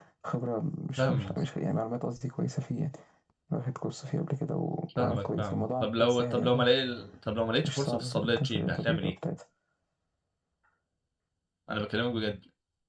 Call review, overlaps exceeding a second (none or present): present